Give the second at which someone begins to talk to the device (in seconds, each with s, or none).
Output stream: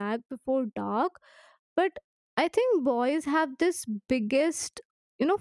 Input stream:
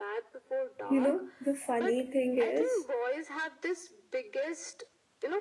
0.9 s